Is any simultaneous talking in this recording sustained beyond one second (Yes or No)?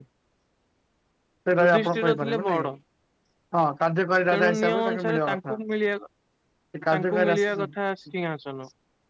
Yes